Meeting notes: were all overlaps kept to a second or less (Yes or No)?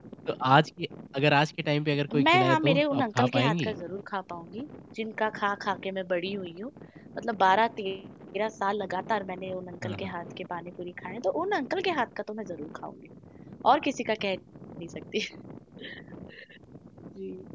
No